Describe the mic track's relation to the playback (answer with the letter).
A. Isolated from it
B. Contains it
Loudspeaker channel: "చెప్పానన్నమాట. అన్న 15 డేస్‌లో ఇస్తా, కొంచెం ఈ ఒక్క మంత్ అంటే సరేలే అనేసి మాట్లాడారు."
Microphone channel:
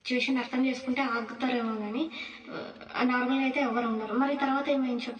A